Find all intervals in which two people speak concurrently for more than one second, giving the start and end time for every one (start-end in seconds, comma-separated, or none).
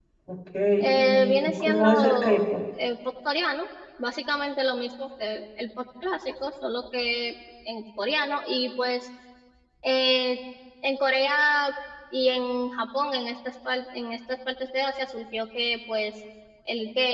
1.0-2.5